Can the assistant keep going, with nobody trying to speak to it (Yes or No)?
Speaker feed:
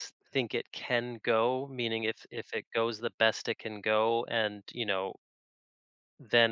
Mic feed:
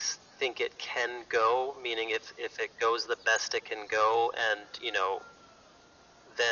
Yes